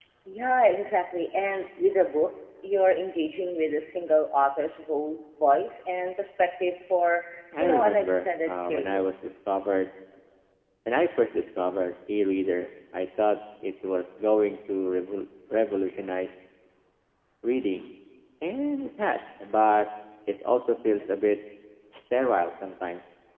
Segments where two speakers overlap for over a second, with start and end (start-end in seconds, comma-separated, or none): 7.6-9.0